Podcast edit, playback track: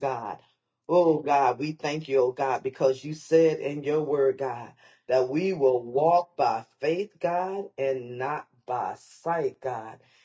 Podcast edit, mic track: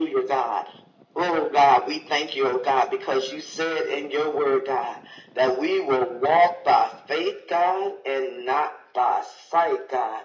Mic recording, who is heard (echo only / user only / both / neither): echo only